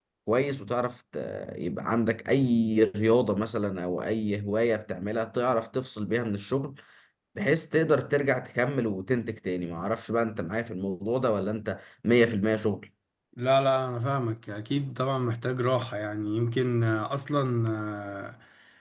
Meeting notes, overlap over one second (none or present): none